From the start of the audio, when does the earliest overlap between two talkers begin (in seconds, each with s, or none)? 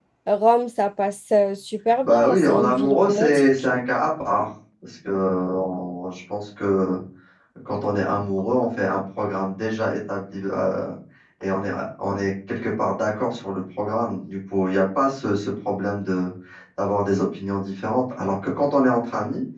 1.9 s